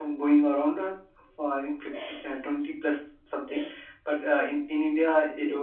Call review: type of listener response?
listening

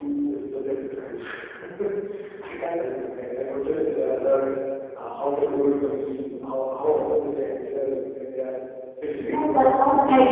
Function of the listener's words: taking over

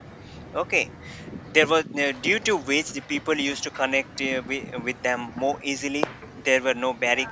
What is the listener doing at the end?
listening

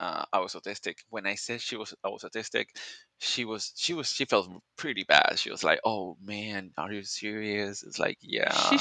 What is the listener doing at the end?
taking over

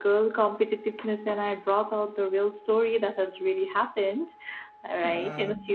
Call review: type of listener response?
listening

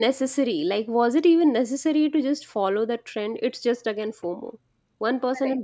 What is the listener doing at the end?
listening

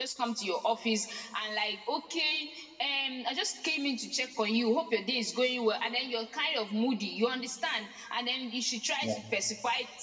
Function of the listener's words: listening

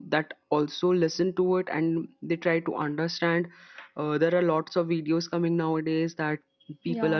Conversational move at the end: listening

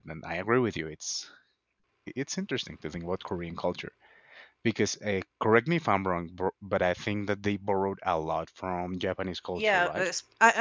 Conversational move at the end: taking over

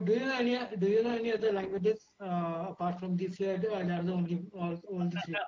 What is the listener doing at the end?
taking over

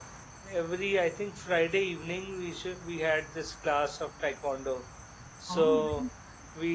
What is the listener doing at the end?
listening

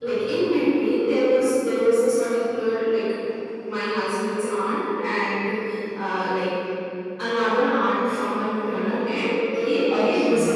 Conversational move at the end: listening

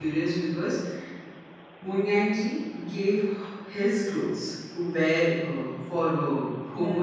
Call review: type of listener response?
listening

